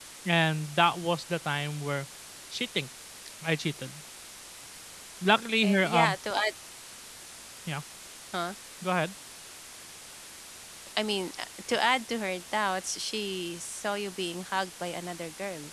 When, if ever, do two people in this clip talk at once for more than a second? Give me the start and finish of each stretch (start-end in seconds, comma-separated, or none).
none